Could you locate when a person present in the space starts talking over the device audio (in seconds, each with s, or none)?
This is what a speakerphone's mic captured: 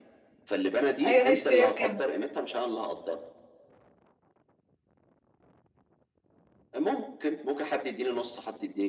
1.0 s